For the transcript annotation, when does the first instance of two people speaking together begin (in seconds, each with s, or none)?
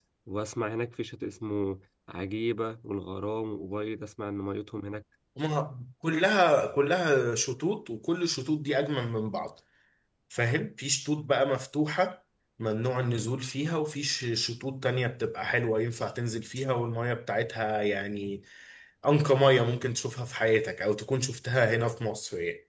none